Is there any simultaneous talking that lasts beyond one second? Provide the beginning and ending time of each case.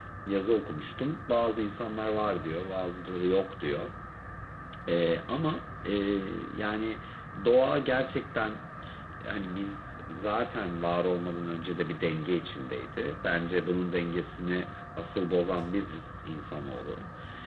none

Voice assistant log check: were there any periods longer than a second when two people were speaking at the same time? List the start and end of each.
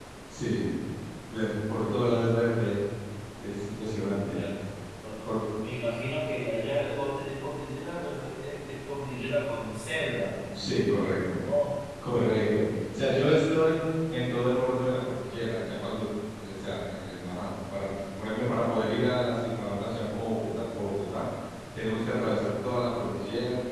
none

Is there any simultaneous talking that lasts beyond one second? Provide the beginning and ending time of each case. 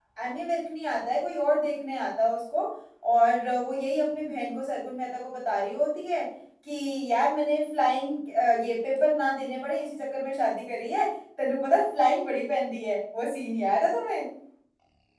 none

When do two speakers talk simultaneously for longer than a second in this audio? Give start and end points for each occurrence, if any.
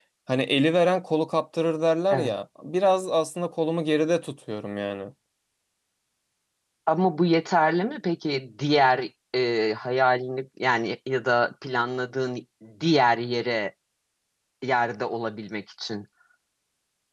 none

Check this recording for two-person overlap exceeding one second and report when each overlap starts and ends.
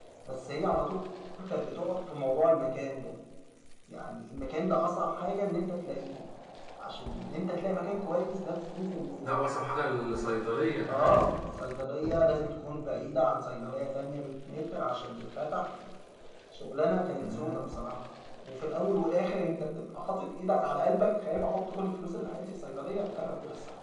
none

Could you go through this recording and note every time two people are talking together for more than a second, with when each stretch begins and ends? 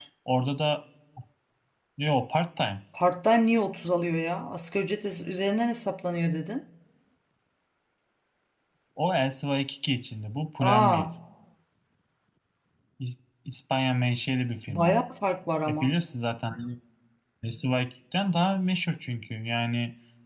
none

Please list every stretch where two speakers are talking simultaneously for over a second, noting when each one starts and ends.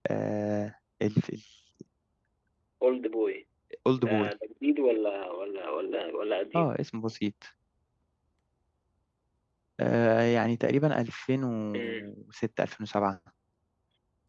none

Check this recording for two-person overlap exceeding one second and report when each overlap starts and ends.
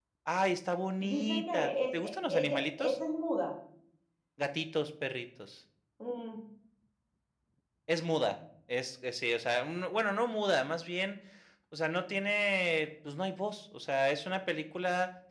1.0-3.0

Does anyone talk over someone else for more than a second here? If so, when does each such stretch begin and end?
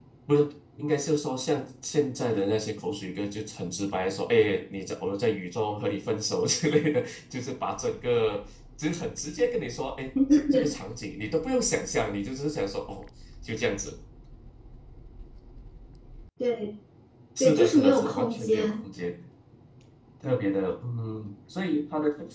17.4-18.8

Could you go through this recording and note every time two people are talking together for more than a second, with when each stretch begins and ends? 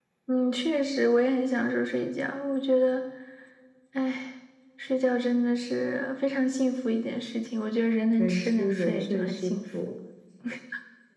8.2-9.5

